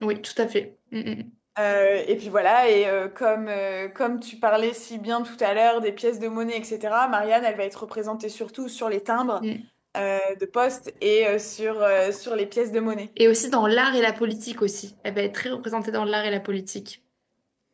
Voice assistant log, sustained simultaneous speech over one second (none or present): none